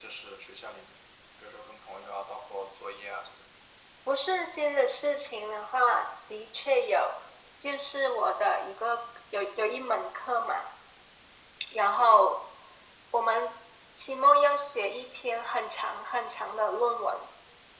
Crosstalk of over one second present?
No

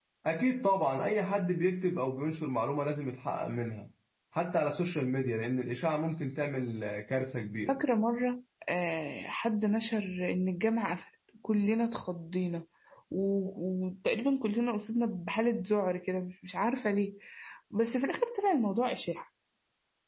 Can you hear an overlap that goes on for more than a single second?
No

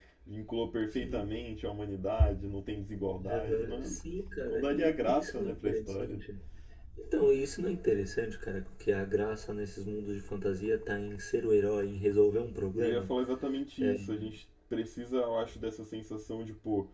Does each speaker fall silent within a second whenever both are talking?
No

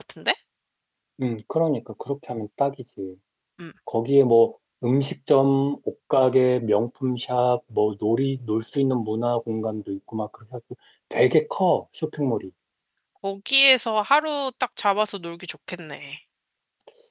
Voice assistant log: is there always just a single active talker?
Yes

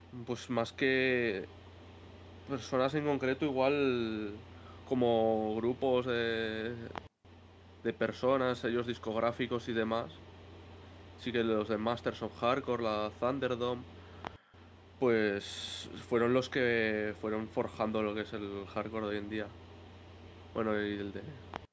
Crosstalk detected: No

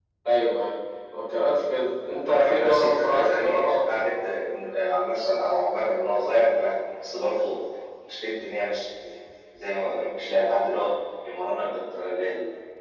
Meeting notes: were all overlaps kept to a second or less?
No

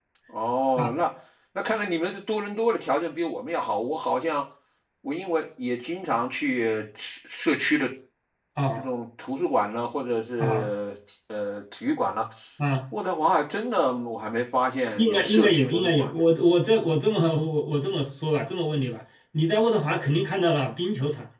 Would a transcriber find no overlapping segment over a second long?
No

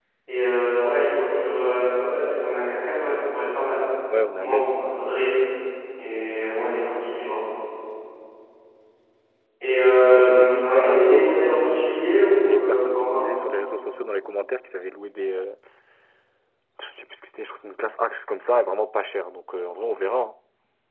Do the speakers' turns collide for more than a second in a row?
Yes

